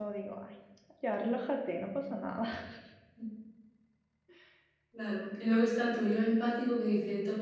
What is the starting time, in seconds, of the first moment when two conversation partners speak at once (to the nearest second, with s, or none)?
none